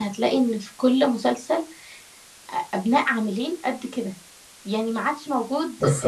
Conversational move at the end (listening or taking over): listening